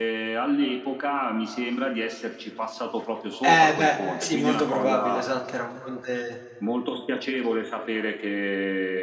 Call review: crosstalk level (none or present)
present